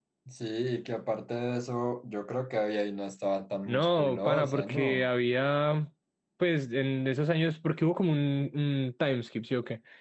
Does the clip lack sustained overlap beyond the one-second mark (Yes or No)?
No